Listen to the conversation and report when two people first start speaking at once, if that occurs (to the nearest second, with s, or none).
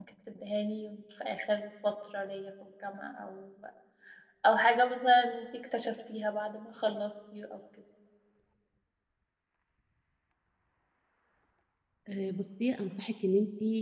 none